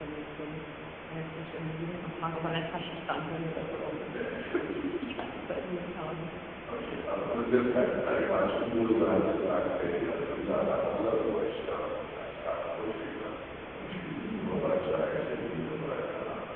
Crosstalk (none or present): present